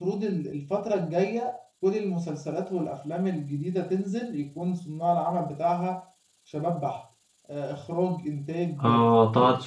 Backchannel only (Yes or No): No